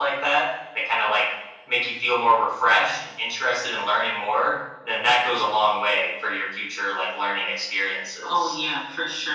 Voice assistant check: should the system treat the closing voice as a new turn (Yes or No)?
Yes